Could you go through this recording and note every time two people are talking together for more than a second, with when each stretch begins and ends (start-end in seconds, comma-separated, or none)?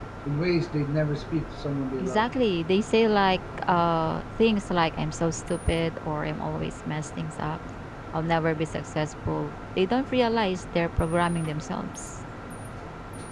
none